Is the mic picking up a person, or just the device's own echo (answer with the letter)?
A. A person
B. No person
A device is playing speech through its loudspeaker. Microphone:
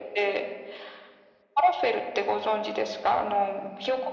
B